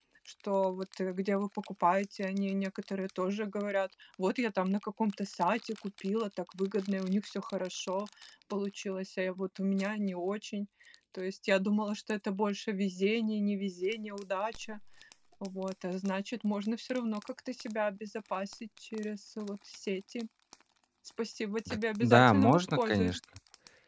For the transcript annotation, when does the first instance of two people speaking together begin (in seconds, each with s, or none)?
21.7 s